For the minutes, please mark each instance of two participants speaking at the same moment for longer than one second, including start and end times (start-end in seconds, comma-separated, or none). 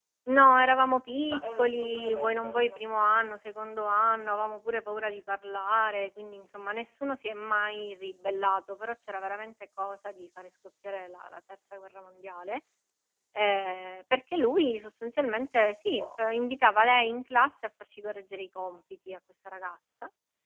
1.3-2.8